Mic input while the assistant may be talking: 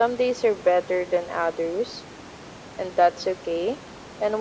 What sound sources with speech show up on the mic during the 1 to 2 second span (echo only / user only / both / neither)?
echo only